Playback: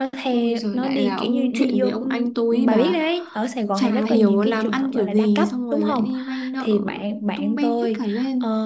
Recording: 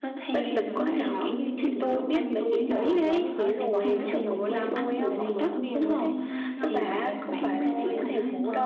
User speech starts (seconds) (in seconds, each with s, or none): 0.3 s